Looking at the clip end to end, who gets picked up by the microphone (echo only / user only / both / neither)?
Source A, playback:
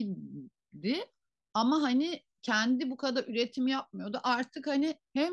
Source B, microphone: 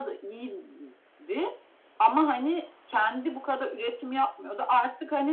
echo only